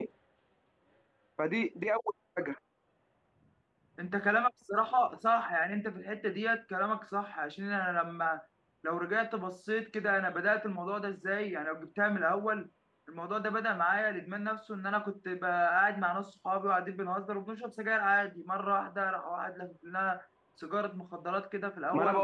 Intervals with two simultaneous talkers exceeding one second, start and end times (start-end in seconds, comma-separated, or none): none